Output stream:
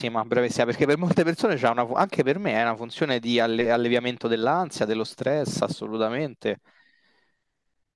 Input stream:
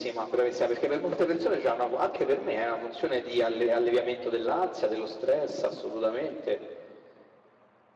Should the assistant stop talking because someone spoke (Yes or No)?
No